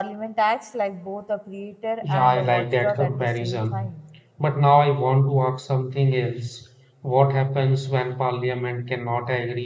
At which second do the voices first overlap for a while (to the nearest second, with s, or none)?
2 s